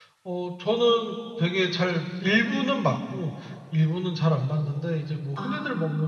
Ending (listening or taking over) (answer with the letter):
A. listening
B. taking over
A